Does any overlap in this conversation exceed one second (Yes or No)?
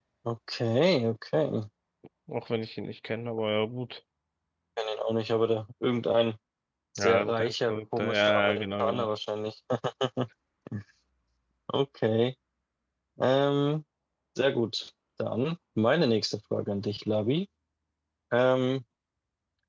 Yes